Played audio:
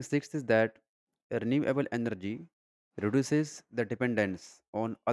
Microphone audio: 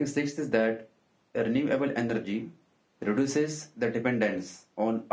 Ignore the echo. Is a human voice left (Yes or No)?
No